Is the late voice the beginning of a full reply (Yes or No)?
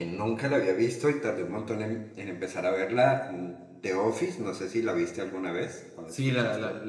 Yes